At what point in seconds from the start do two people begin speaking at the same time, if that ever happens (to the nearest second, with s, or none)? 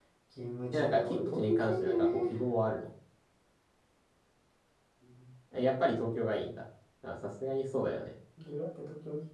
1 s